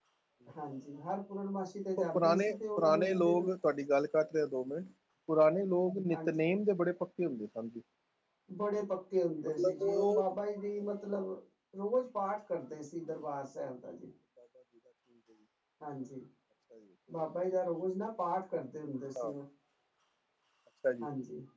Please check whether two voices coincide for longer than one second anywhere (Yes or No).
Yes